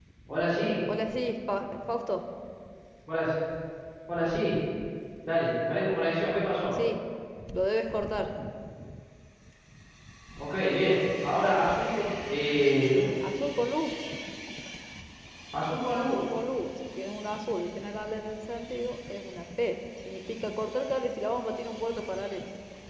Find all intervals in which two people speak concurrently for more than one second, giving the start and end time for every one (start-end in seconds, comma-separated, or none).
none